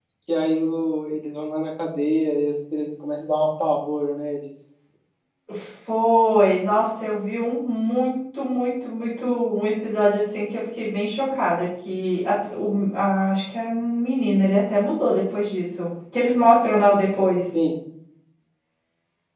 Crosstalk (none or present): none